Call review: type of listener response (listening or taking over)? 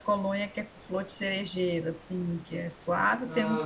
listening